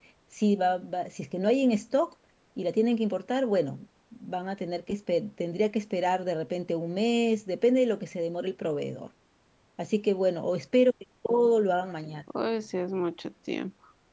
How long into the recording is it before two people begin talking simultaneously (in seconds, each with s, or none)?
none